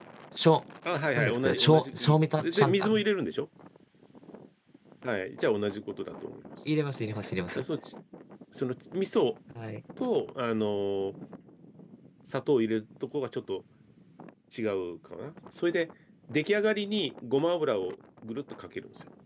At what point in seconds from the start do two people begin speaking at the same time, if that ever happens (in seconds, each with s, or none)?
1.1 s